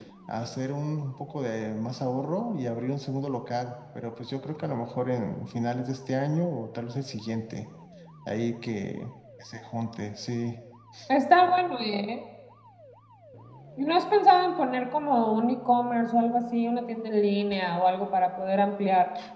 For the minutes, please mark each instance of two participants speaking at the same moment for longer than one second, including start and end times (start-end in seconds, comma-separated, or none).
none